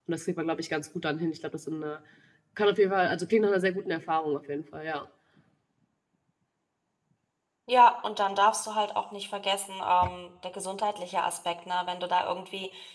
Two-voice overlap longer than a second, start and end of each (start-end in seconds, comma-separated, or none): none